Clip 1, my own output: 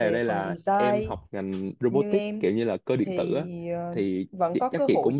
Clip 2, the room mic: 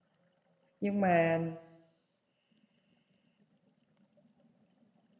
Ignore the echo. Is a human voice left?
Yes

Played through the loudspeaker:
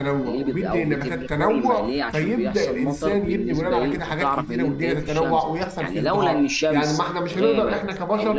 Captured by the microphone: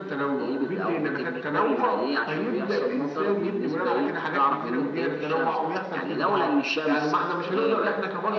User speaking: No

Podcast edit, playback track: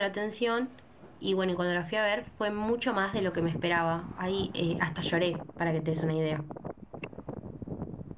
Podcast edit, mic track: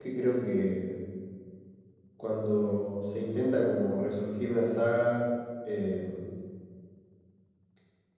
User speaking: Yes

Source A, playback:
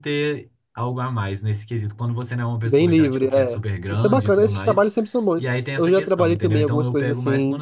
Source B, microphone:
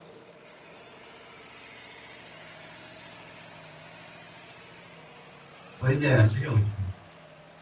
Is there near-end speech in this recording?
Yes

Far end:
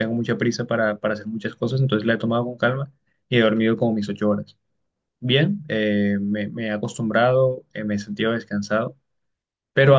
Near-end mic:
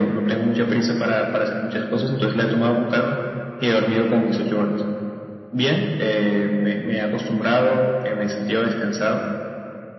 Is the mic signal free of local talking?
Yes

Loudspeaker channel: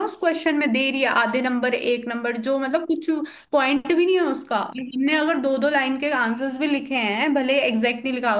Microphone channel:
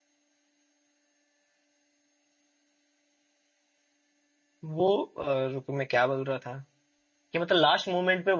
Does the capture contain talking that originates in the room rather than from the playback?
Yes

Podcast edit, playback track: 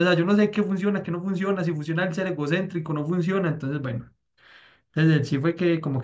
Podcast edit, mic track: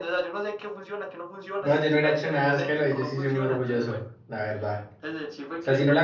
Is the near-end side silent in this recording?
No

